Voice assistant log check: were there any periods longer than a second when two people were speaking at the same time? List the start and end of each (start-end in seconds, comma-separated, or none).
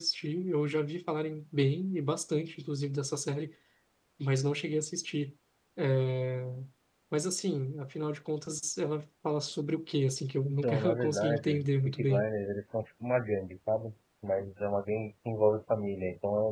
10.4-12.3